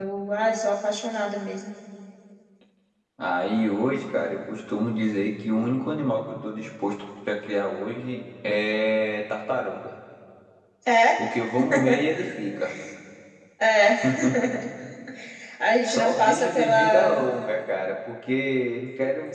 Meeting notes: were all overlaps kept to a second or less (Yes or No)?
No